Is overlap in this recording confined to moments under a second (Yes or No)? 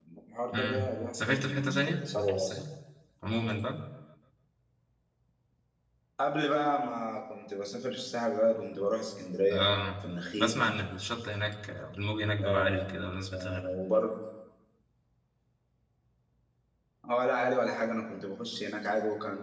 No